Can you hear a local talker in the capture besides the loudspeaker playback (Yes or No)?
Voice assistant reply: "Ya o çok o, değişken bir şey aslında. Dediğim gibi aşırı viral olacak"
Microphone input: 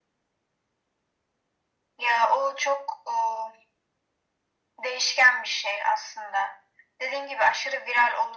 No